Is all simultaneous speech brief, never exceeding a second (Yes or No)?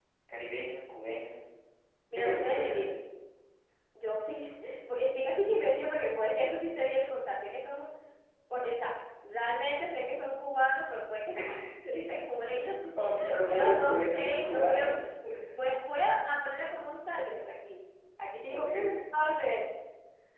No